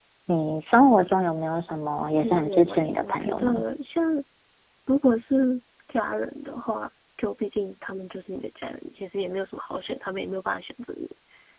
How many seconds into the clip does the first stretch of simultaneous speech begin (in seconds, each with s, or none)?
2.2 s